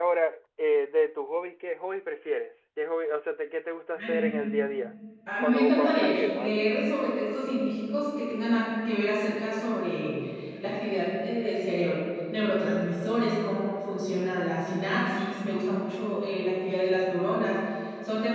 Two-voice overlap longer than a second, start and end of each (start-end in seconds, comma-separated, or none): 5.4-6.7